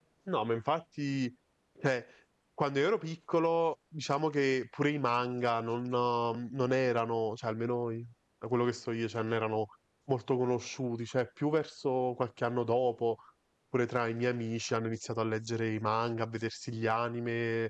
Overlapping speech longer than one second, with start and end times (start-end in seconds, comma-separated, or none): none